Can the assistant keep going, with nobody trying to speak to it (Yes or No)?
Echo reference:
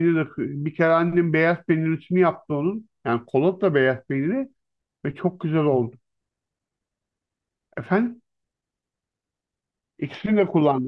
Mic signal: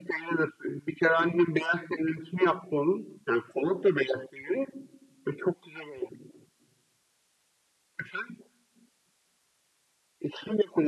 Yes